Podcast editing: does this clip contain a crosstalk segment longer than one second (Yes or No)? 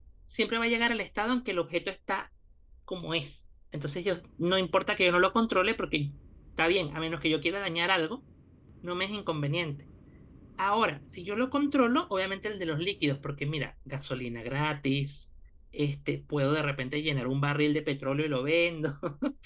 No